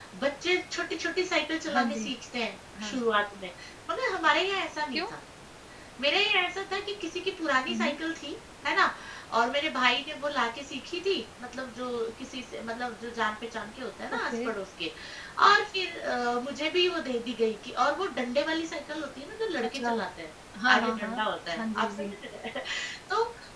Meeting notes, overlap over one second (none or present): none